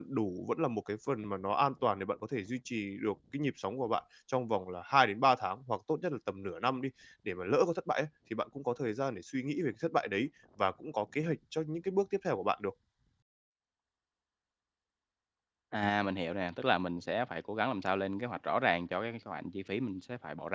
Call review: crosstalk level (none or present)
none